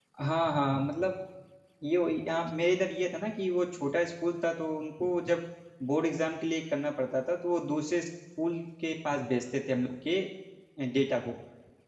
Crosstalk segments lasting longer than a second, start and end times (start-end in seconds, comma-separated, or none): none